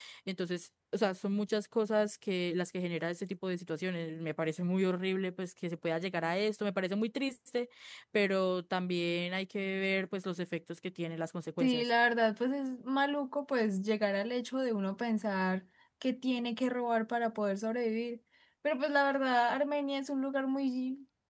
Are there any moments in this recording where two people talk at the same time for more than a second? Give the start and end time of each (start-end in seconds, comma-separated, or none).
none